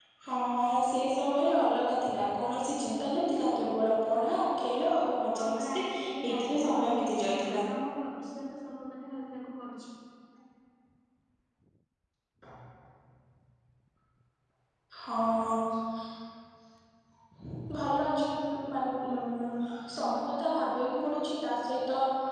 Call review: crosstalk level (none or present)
present